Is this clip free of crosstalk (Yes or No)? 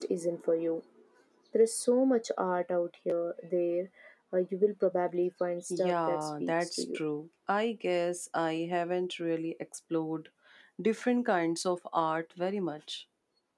No